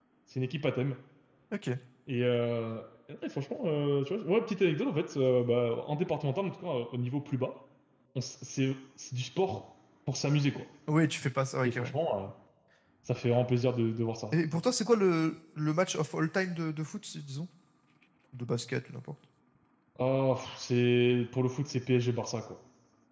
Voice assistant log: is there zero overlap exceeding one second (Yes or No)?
Yes